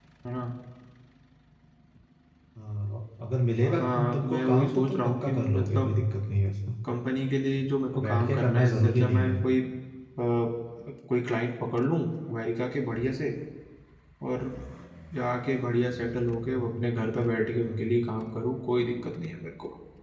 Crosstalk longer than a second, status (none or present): present